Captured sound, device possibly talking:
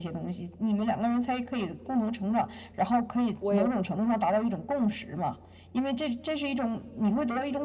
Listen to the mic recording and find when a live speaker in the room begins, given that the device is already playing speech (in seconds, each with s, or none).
3.4 s